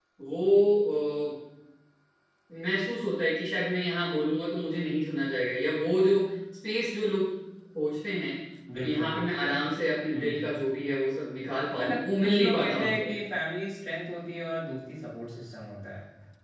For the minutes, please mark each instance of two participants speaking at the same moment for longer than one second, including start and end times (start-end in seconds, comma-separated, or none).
11.8-13.1